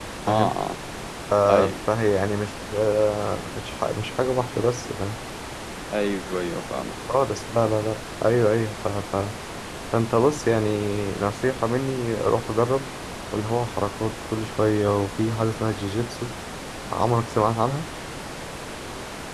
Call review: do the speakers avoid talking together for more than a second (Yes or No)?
Yes